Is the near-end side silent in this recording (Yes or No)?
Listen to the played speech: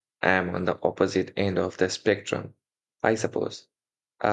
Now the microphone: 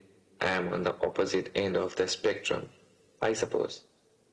Yes